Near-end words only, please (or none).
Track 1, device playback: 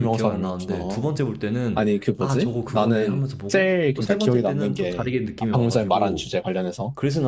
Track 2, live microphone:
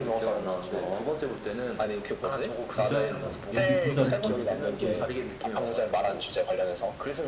진짜 연기 너무 잘해가지고